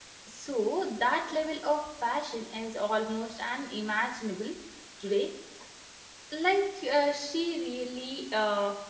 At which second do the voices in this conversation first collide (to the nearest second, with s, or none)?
none